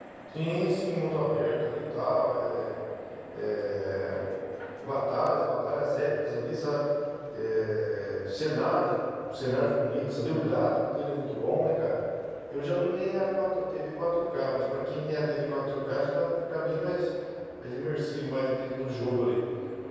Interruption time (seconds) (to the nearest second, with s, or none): none